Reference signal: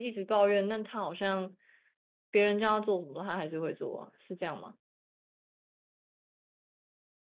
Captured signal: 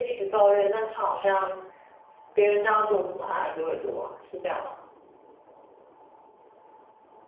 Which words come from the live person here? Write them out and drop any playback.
none

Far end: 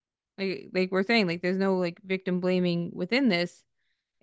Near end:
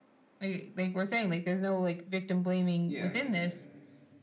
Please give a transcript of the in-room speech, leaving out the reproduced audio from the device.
Yeah,

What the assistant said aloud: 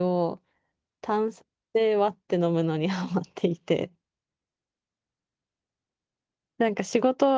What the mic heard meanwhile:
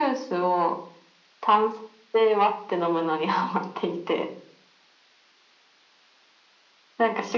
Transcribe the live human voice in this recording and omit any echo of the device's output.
none

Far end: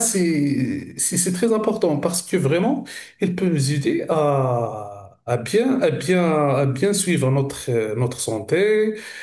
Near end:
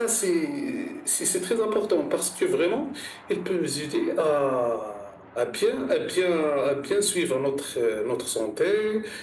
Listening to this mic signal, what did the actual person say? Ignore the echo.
none

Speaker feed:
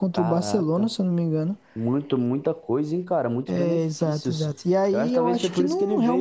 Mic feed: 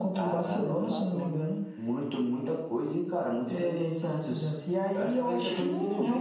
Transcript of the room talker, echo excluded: E a casona.

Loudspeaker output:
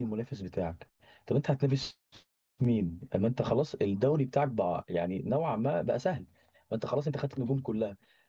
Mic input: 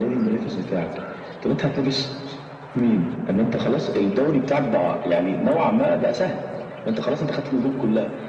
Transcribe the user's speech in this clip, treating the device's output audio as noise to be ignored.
none

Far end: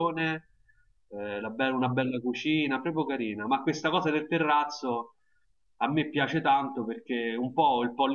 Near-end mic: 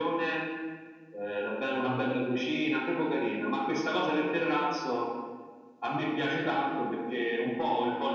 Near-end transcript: none

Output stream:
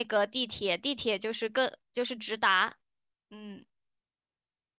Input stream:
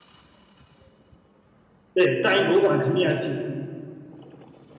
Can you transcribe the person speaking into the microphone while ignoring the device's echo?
对，大英博物馆肯定要去。

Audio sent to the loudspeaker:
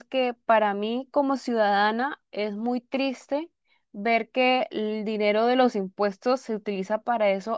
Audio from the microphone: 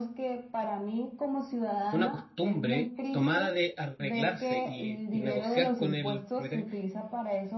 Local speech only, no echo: una costumbre tomada de arreglarse y, y negociar con el propietario.

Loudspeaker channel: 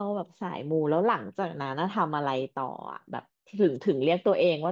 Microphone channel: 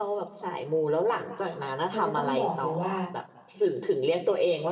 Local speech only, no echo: มันจะต้องบอกเลยว่า

